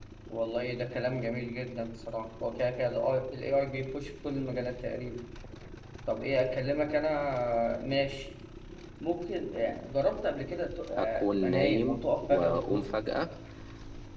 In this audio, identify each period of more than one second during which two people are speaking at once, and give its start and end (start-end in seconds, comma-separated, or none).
10.9-12.9